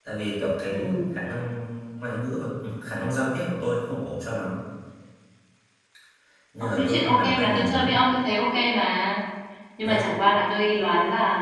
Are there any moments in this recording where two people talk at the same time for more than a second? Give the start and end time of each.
6.6-8.0

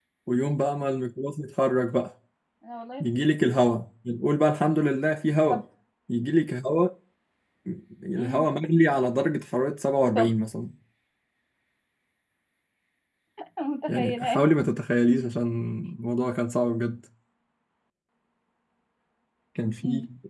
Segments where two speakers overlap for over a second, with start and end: none

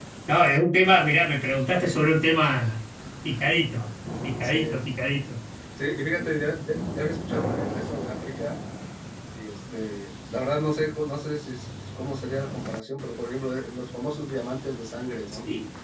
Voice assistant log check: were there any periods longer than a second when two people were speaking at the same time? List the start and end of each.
none

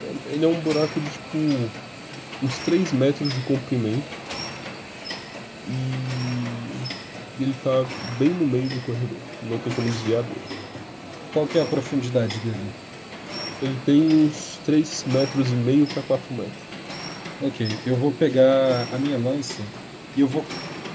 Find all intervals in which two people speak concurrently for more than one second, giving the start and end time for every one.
none

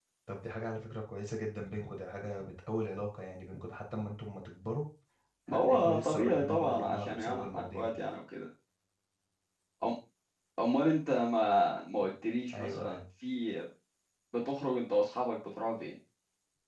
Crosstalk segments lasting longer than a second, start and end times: 5.5-7.9

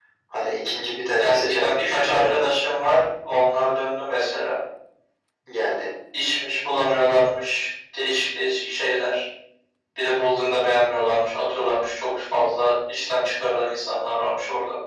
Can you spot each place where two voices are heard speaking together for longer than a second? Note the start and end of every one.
1.2-2.5

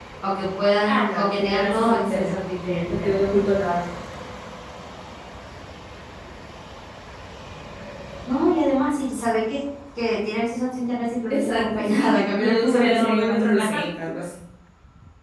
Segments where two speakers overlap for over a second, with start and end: 0.8-2.3, 11.3-13.6

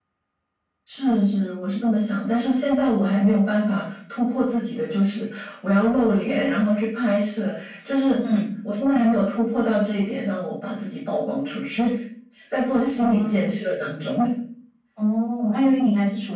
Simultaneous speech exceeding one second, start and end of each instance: none

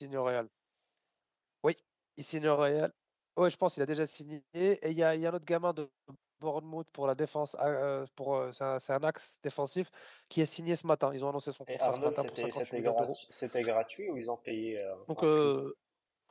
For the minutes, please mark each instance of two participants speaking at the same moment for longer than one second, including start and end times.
11.7-13.2

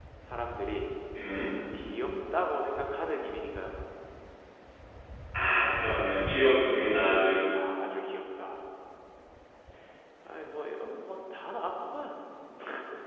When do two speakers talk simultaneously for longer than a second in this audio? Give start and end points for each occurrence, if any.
none

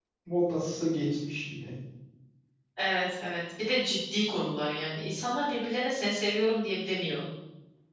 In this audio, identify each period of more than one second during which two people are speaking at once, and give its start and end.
none

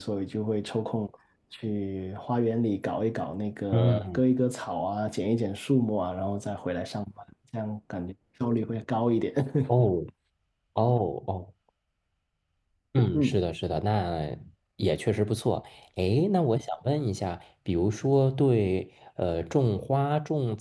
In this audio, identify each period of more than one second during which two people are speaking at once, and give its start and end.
none

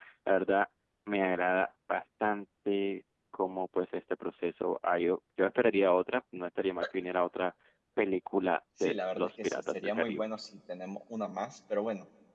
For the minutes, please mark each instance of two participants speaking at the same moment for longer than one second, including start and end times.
8.8-10.2

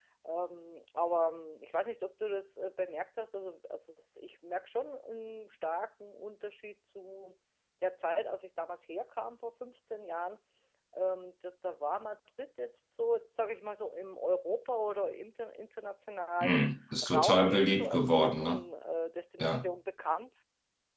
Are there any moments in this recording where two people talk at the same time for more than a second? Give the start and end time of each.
17.1-18.6

